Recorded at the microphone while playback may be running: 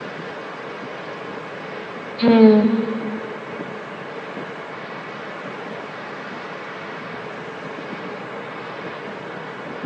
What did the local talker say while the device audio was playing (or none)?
హ్మ్.